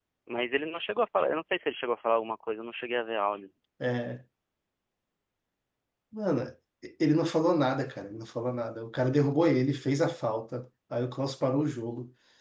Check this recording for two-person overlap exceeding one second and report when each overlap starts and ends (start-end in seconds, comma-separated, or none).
none